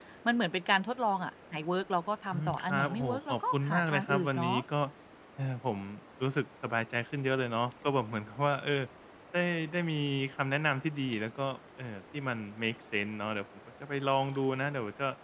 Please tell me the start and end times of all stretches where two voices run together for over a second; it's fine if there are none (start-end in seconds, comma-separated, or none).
2.3-4.6